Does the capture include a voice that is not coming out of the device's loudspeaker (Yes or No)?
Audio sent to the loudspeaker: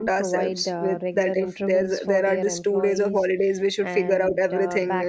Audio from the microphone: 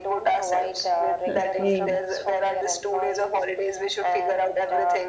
Yes